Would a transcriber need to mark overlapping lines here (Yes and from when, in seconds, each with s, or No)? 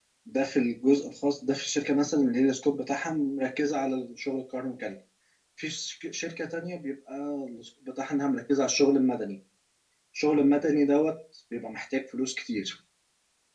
No